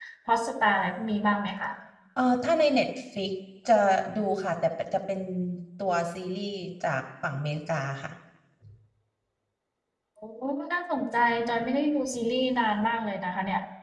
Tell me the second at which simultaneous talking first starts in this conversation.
none

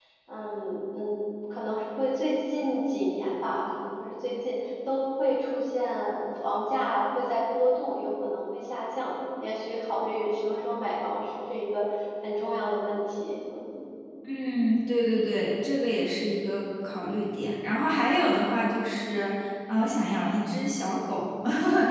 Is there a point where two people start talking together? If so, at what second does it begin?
none

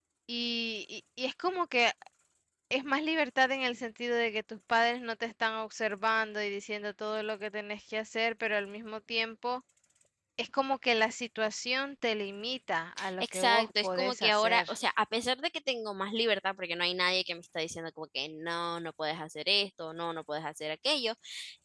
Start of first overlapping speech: 13.0 s

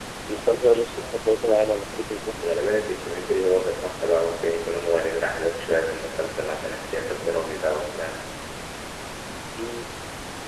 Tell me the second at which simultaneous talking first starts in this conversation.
none

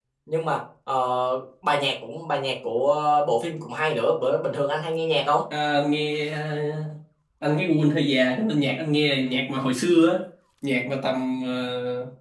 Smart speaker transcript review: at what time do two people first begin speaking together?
none

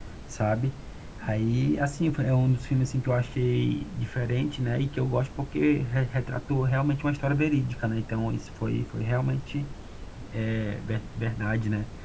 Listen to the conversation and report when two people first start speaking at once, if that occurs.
none

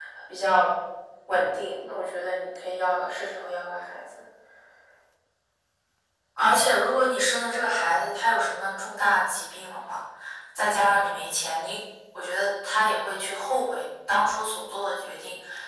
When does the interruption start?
none

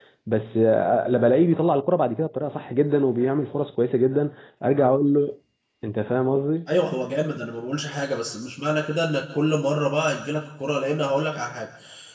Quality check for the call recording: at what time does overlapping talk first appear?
none

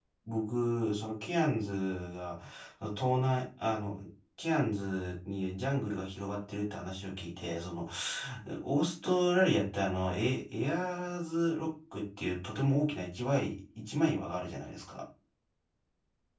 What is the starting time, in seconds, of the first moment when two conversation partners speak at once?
none

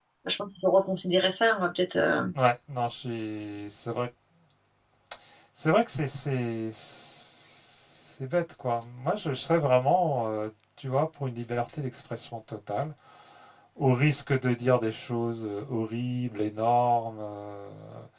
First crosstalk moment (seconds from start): none

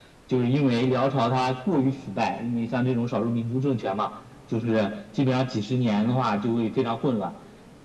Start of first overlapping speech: none

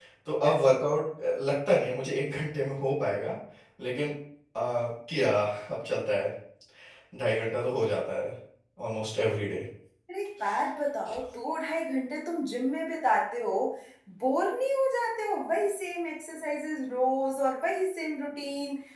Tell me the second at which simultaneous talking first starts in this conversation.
none

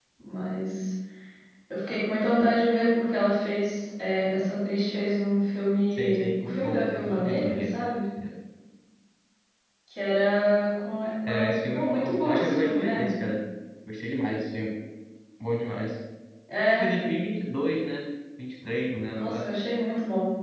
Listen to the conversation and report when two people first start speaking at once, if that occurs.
5.9 s

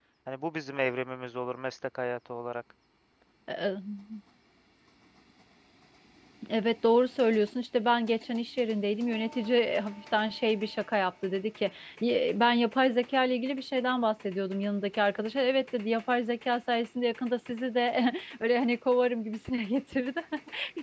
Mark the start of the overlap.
none

